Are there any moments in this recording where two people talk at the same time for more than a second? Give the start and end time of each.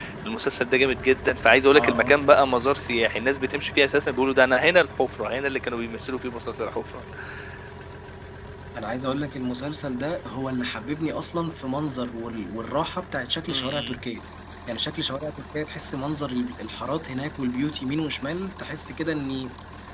none

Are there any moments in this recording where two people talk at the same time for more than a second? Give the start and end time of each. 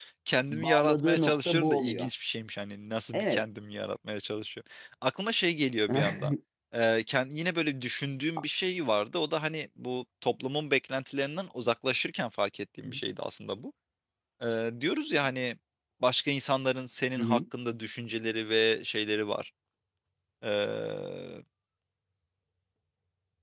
0.5-2.1

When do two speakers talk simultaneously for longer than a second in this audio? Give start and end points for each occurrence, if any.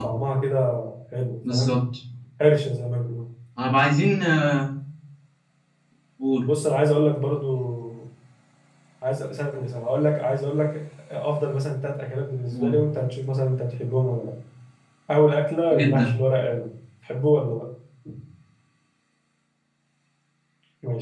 none

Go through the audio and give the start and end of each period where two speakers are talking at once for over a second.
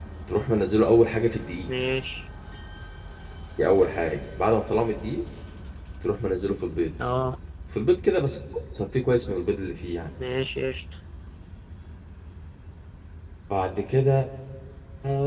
none

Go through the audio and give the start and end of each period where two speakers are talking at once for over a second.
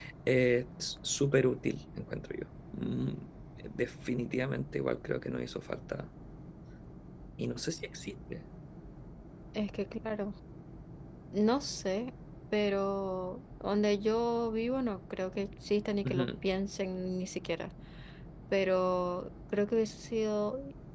none

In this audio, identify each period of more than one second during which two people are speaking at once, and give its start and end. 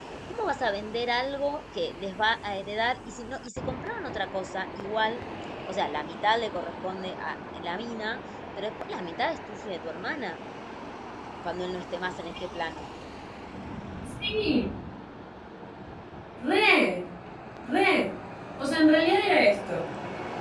none

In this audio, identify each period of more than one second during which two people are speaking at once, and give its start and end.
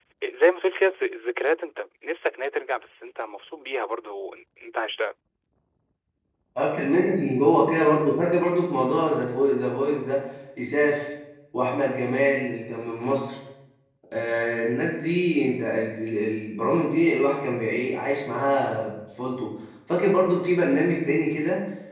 none

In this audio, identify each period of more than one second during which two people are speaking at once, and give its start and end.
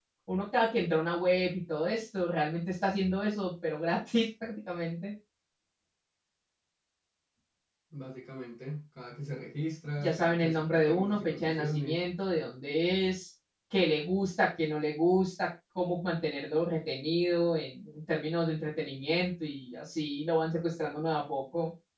10.0-12.0

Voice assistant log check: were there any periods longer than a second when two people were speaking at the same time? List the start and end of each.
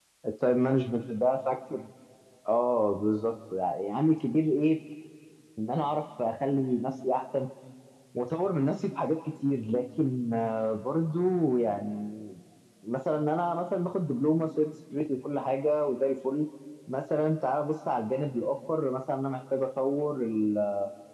none

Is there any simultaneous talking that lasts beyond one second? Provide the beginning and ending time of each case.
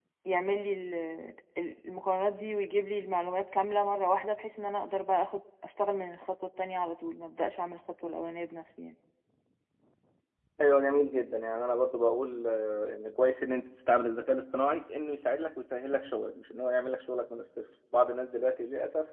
none

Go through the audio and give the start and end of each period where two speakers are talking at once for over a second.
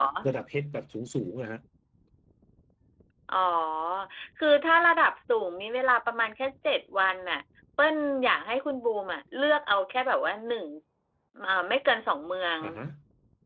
none

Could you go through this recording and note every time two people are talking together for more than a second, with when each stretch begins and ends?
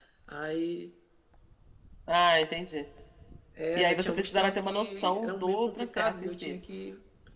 3.8-6.6

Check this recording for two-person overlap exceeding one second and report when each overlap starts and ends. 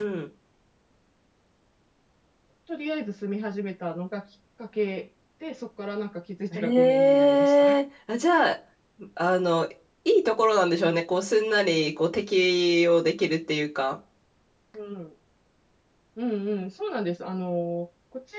6.5-7.8

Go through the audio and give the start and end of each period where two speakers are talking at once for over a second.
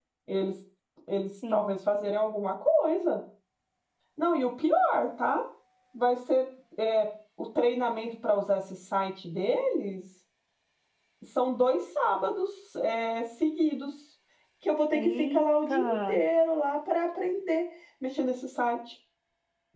14.9-16.2

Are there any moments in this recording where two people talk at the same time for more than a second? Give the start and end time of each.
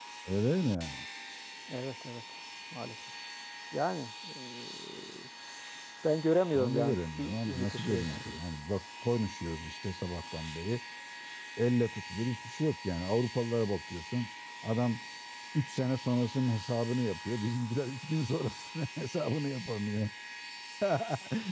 6.6-8.0

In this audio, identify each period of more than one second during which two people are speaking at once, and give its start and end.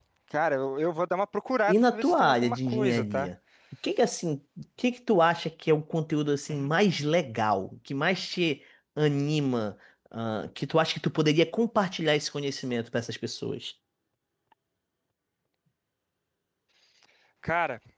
1.7-3.3

